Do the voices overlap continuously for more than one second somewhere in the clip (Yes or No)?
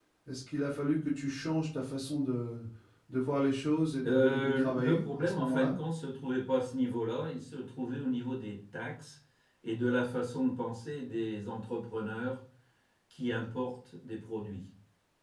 Yes